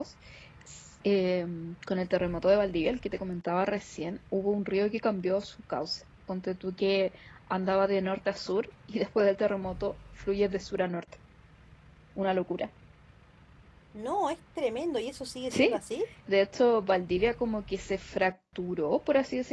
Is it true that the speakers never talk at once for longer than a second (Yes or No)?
Yes